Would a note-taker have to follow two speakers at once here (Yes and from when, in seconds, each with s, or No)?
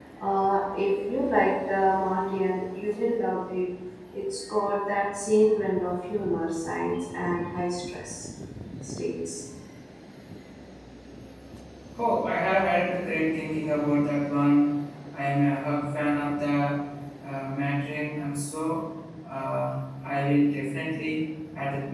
No